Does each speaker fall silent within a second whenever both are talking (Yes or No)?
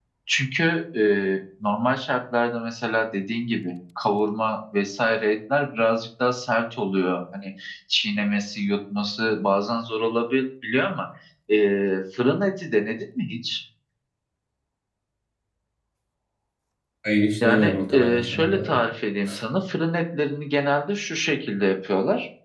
No